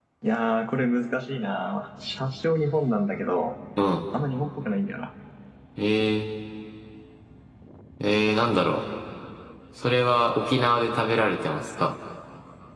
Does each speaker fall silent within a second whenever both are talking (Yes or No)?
Yes